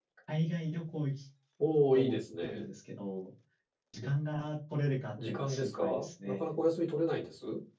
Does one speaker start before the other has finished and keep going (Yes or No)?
Yes